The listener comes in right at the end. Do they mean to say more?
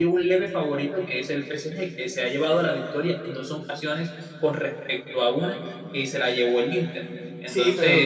Yes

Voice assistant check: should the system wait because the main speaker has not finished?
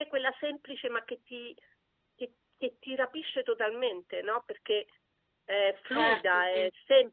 Yes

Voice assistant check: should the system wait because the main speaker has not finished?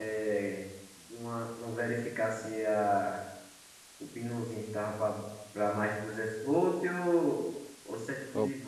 Yes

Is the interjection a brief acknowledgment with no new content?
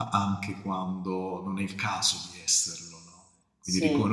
Yes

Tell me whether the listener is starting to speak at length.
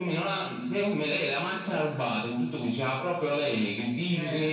No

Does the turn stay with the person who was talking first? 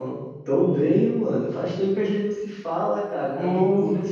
Yes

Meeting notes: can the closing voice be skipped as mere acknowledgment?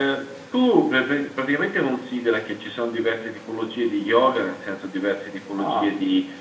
Yes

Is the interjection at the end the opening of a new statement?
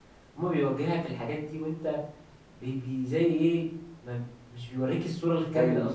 Yes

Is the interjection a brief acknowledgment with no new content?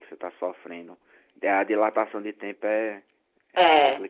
No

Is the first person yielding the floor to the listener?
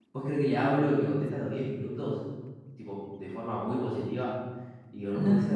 No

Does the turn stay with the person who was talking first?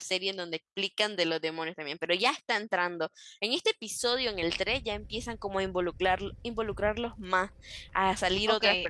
No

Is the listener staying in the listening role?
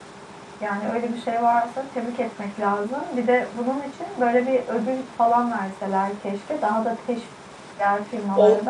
No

